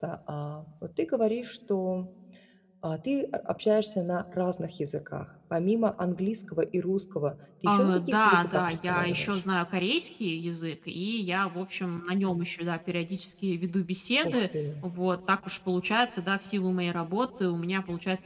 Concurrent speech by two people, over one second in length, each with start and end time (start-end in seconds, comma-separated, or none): 7.7-9.4